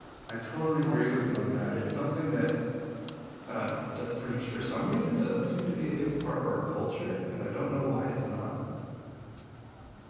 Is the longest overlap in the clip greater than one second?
Yes, from 0.8 s

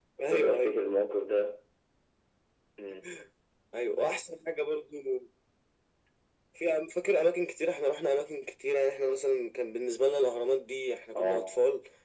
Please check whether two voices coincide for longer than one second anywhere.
No

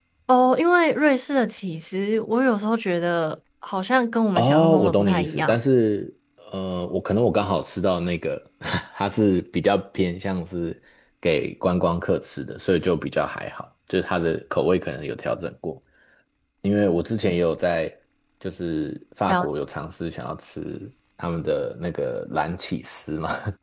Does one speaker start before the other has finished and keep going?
Yes, from 4.4 s

